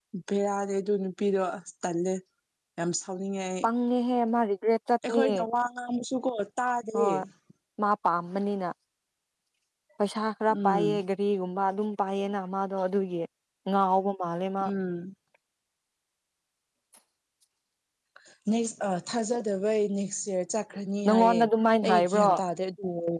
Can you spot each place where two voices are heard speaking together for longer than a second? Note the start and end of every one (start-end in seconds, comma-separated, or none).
none